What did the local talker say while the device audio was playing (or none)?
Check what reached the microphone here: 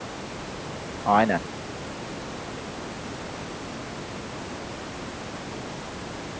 Aynen.